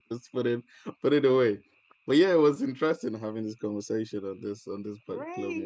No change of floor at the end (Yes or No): No